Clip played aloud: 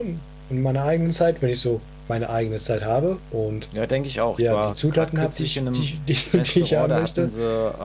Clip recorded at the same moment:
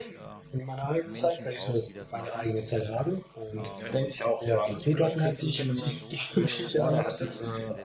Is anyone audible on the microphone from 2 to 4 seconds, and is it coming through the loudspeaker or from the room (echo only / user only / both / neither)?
both